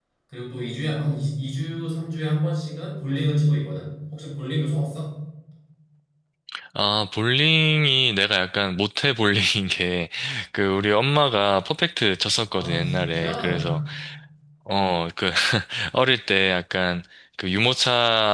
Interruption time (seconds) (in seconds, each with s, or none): 12.5 s